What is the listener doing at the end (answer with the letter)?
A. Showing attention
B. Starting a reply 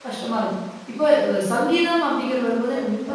A